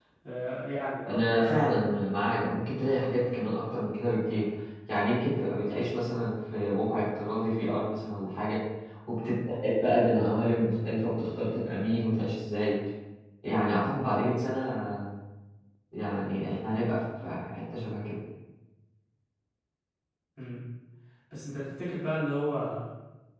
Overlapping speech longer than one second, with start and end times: none

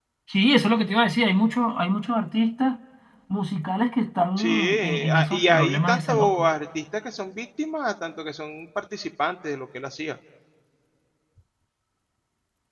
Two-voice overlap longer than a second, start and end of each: 4.4-6.5

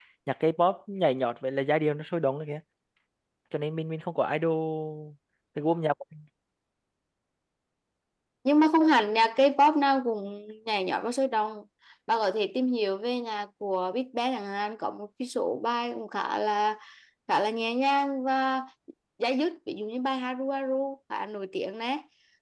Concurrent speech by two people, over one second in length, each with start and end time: none

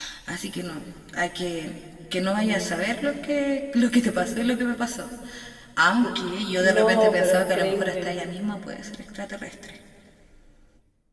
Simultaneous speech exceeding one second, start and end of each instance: 6.6-8.1

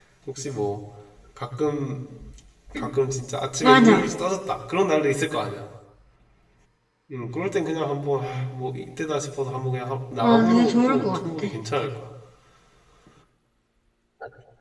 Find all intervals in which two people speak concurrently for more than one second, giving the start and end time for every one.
10.2-11.5

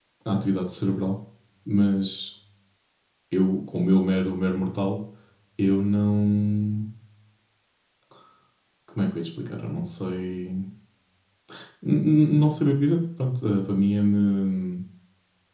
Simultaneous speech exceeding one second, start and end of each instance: none

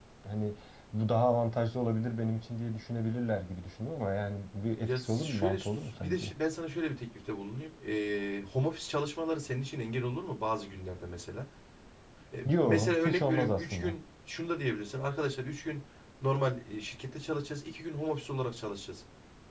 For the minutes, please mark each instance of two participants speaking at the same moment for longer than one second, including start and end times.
4.8-6.3, 12.6-14.0

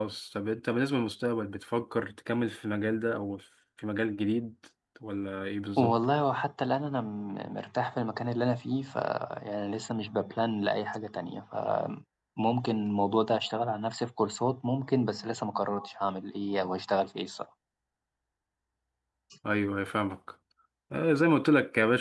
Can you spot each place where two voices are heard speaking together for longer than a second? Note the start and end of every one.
none

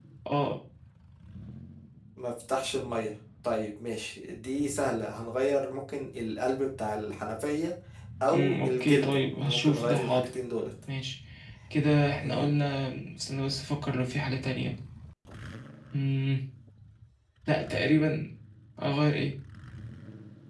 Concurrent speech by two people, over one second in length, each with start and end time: 8.3-10.3

